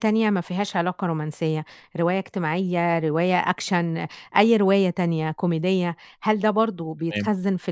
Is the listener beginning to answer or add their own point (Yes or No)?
No